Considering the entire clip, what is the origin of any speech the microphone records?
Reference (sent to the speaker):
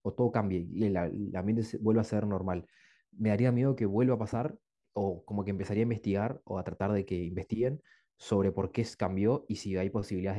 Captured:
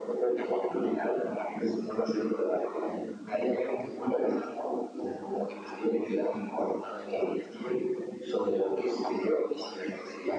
echo only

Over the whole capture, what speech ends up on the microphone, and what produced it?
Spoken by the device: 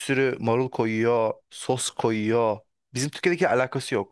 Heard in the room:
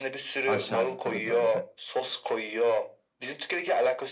both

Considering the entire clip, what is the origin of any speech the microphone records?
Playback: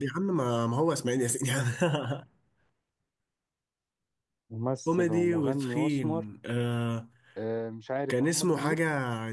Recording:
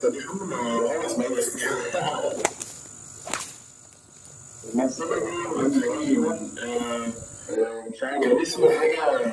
echo only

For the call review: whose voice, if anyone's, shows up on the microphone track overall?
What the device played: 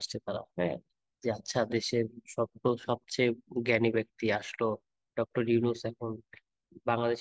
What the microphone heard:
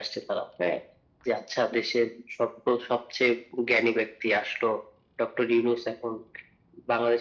echo only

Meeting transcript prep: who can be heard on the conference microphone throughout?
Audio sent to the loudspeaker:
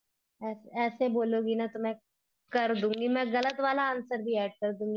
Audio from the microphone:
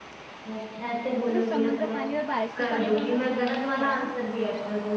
both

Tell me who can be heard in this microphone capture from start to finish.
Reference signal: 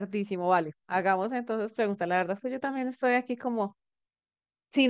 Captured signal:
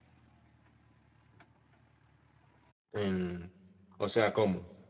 user only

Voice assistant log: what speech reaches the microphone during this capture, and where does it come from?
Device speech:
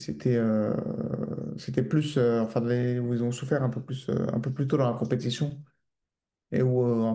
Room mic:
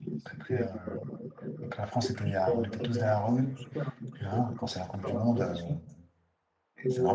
both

